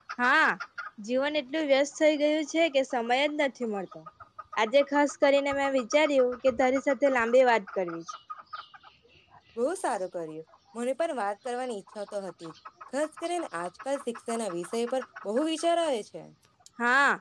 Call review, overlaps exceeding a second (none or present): none